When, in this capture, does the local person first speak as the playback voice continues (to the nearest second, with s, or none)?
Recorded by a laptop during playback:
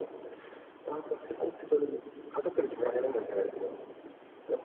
none